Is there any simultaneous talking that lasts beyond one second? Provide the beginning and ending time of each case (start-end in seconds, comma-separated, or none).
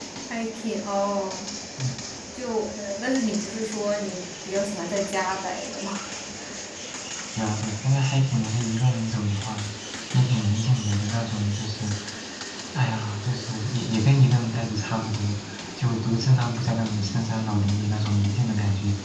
none